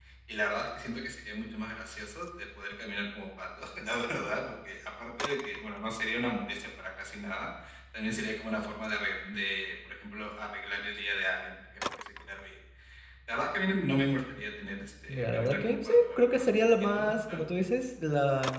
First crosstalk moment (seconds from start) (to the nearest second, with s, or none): 15 s